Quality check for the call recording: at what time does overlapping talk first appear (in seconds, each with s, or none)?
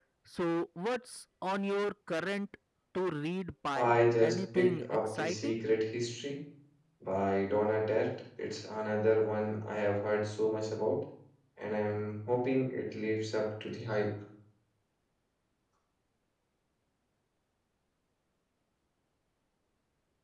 3.8 s